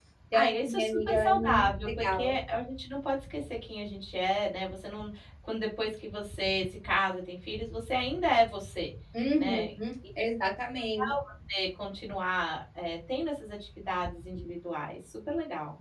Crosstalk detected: Yes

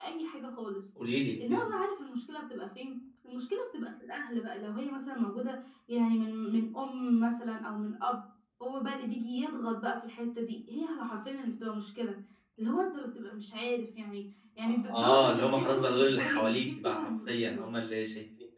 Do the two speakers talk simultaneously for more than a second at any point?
Yes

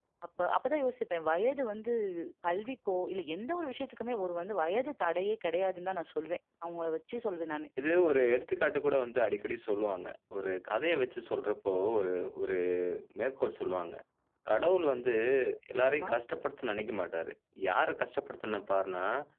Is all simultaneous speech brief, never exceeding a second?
Yes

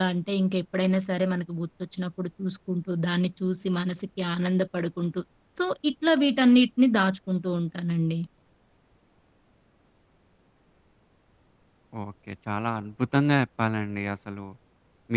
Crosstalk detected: No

